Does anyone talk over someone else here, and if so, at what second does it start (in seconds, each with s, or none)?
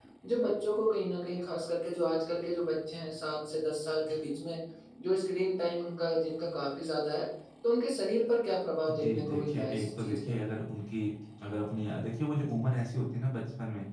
9.0 s